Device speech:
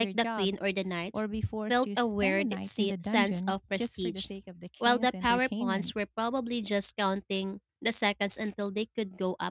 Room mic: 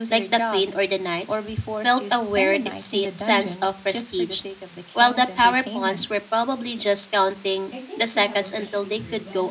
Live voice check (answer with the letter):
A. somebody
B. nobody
A